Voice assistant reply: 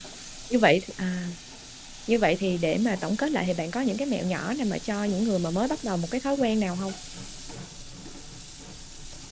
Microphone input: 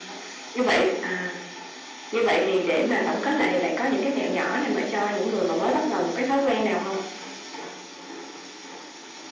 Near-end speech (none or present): none